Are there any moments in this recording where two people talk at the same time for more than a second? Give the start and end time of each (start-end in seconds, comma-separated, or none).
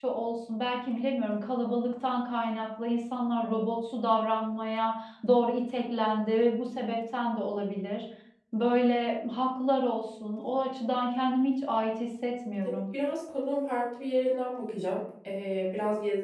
none